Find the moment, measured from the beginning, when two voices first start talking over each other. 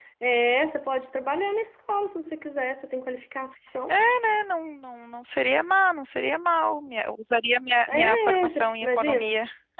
7.9 s

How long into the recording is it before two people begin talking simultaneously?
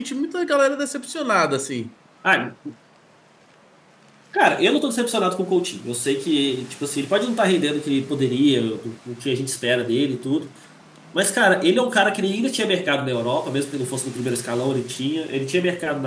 none

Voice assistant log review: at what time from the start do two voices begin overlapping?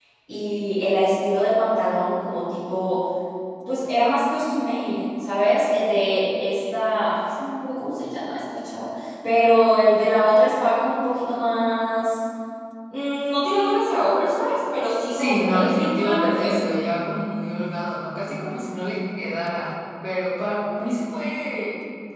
15.1 s

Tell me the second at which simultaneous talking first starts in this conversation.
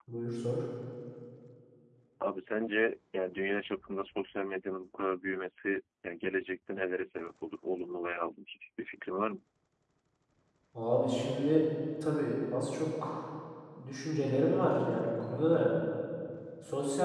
none

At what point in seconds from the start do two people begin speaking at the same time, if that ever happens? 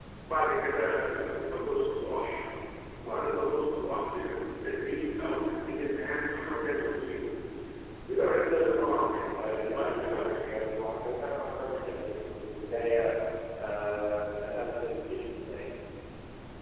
9.4 s

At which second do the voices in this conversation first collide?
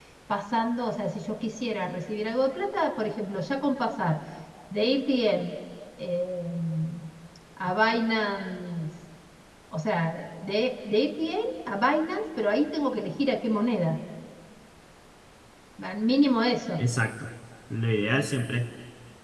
none

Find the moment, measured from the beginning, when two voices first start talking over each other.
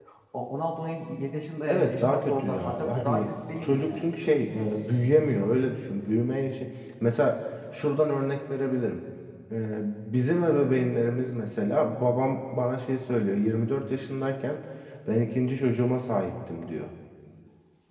1.7 s

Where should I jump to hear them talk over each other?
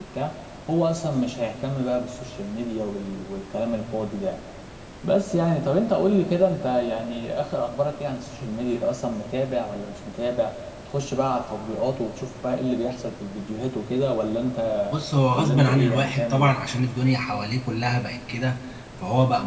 15.3 s

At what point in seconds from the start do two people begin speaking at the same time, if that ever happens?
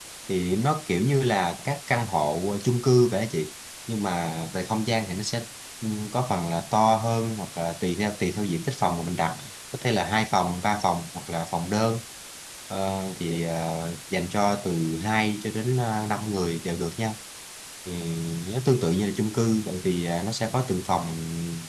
none

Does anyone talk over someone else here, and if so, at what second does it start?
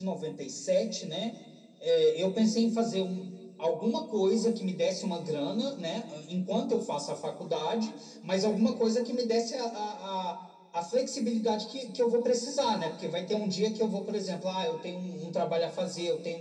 none

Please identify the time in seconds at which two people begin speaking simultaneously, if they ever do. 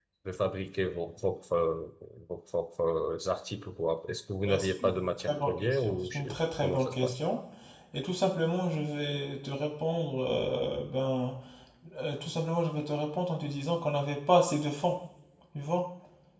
4.5 s

